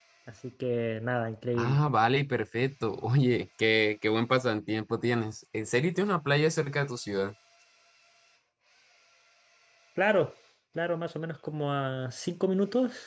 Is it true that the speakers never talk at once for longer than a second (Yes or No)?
Yes